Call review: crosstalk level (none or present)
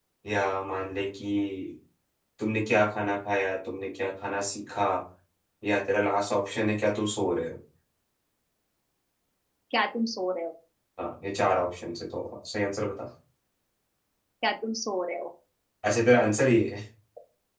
none